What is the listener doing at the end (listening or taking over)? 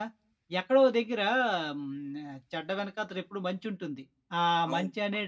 listening